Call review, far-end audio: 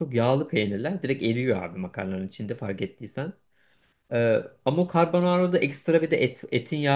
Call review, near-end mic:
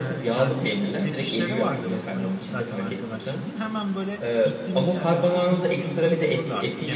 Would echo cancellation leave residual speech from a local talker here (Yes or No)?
Yes